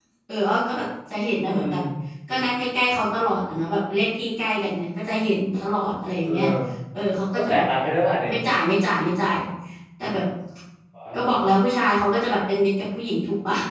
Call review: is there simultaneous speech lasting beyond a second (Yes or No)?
No